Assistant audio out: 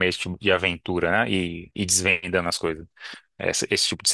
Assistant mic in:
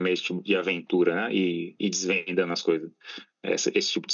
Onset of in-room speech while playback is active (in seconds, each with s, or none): none